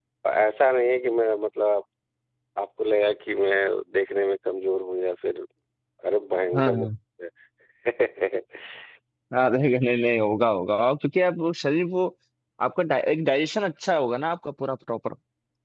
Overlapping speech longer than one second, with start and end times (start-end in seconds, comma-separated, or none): none